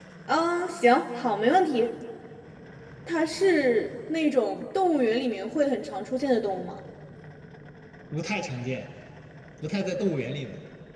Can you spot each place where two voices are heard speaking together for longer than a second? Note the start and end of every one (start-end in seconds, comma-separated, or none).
none